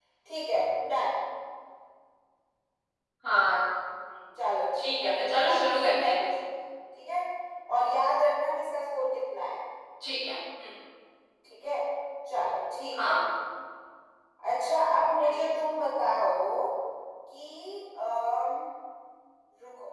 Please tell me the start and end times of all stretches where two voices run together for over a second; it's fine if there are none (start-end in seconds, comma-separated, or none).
4.8-6.1